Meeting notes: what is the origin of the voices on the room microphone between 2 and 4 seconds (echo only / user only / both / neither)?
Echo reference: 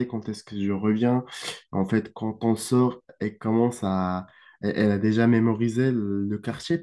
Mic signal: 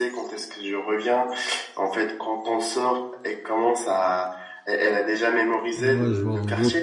echo only